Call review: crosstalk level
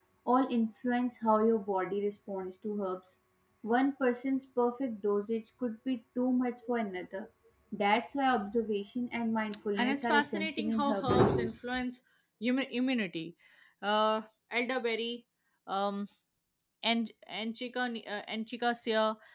present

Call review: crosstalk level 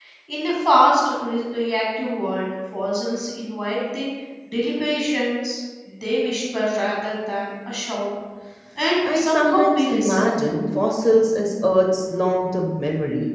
present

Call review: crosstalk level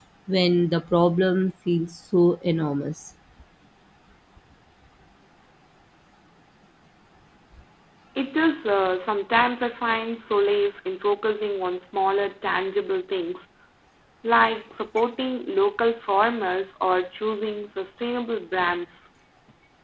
none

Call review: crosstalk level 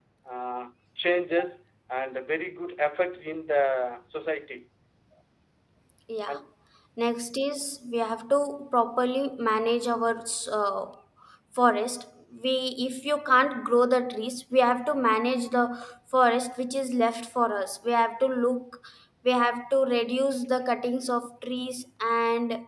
none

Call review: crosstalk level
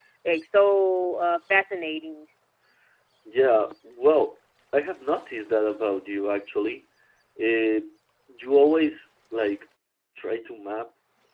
none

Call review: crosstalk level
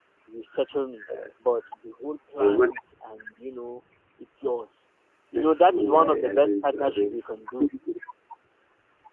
present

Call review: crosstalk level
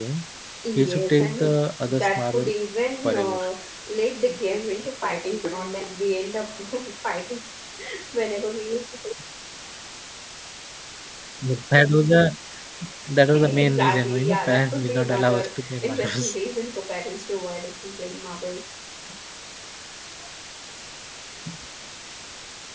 present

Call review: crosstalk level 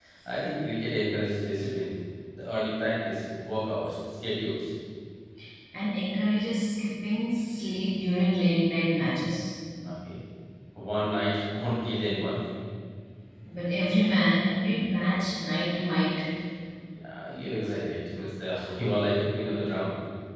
none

